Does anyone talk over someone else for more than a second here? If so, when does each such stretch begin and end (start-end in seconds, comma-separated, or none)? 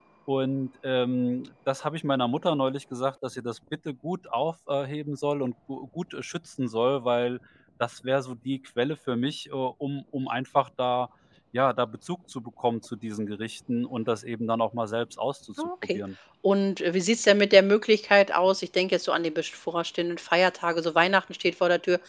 none